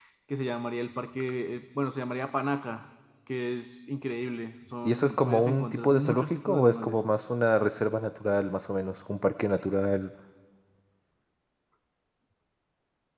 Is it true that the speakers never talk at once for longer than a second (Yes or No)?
No